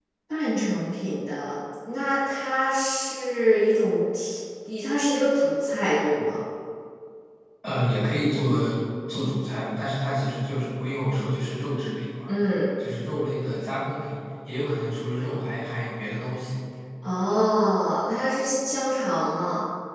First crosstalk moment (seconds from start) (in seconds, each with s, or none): none